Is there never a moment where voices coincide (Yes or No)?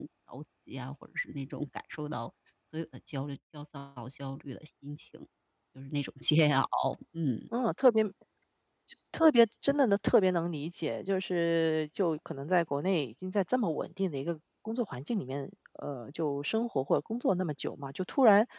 Yes